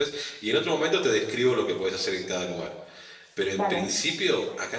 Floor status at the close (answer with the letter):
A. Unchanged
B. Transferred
A